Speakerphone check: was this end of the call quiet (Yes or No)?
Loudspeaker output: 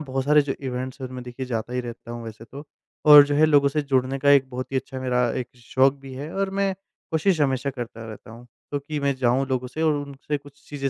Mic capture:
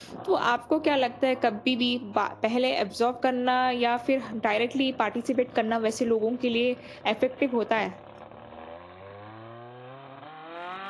No